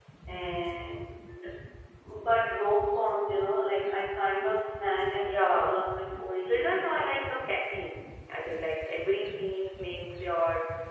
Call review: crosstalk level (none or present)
present